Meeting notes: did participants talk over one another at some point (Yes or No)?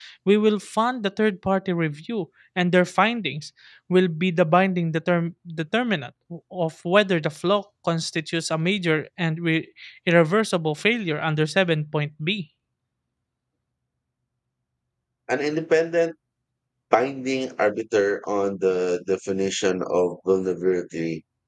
No